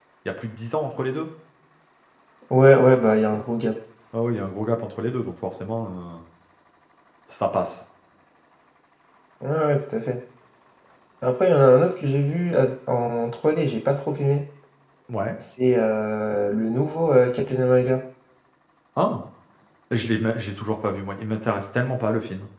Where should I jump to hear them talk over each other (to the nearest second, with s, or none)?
none